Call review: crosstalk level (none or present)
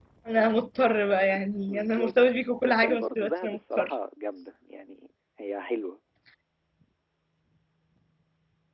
present